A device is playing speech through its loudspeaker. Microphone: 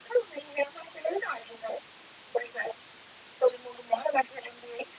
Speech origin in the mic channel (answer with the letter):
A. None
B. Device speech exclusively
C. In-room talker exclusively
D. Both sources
B